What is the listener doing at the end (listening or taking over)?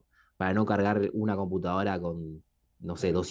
listening